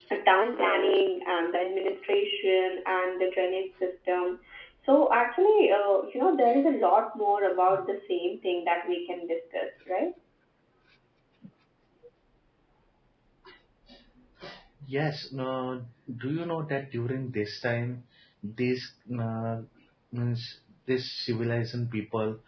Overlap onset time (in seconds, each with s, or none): none